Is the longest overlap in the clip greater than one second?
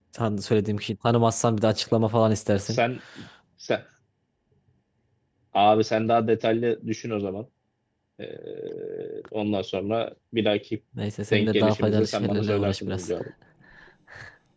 Yes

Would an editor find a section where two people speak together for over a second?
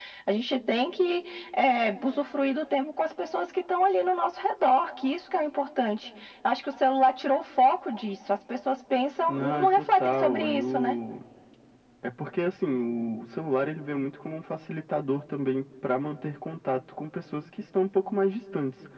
Yes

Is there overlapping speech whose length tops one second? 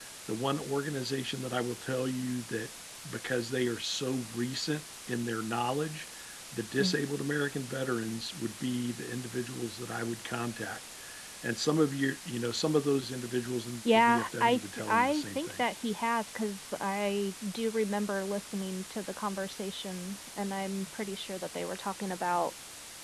Yes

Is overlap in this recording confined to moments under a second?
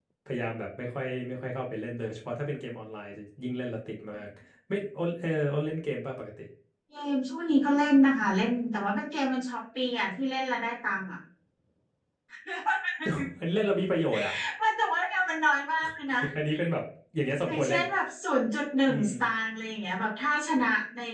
Yes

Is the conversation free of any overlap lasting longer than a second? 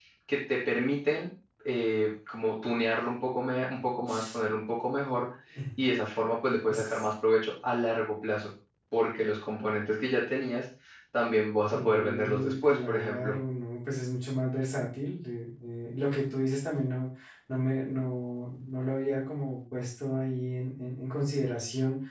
No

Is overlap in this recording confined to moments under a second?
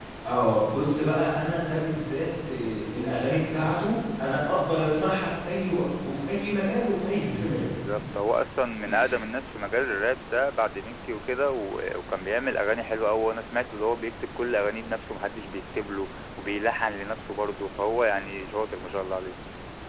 Yes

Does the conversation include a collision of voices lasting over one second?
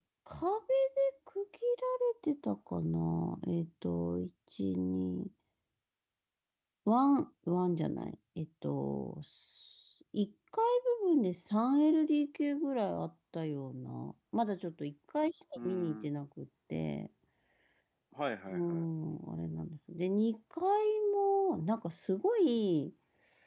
No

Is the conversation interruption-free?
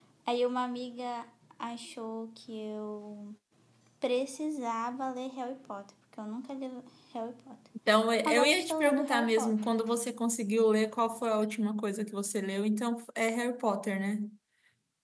No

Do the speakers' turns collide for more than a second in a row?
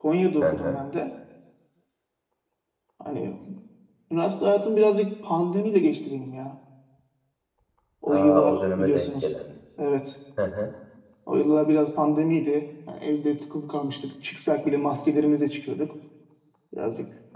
Yes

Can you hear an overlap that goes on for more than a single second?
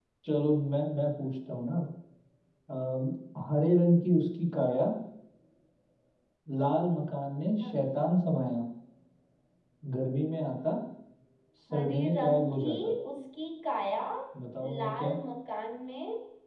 Yes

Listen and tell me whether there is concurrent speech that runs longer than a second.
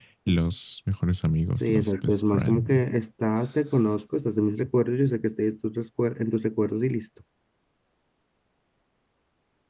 Yes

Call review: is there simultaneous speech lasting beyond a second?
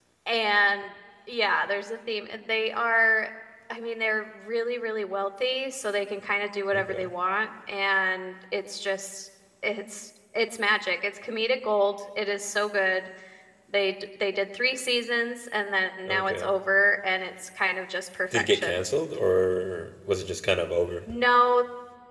No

